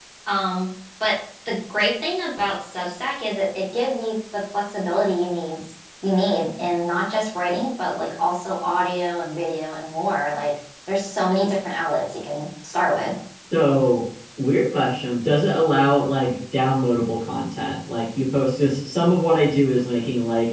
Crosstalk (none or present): none